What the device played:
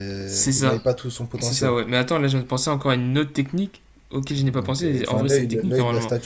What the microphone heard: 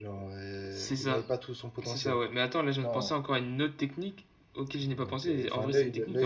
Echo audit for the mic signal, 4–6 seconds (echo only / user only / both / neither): echo only